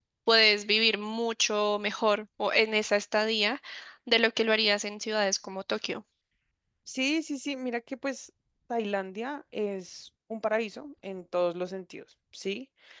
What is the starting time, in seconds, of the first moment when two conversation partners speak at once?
none

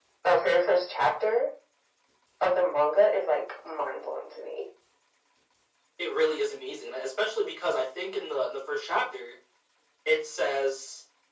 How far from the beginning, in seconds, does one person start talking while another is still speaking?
none

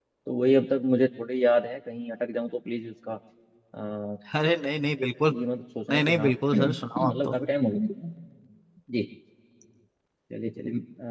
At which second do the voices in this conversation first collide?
5.9 s

